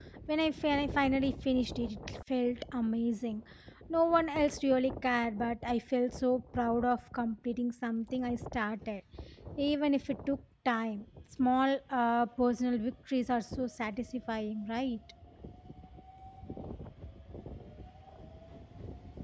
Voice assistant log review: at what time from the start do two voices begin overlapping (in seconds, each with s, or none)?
none